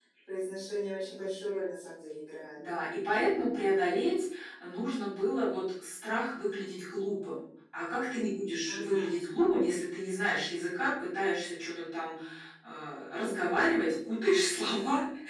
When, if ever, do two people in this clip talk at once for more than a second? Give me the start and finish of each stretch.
none

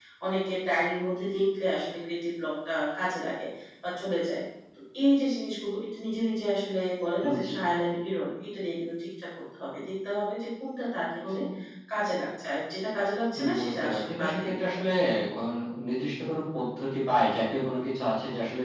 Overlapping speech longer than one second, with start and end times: 13.4-14.9

